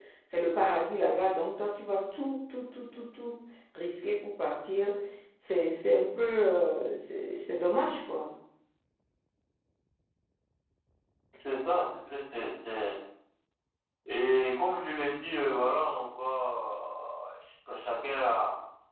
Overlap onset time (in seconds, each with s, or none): none